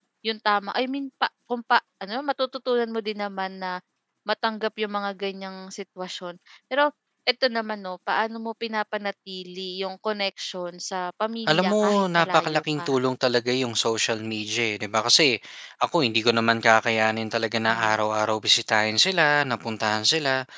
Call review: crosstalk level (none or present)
present